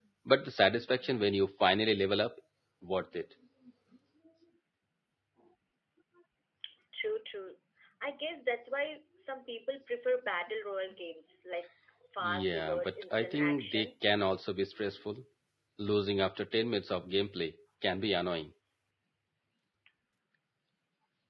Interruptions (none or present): present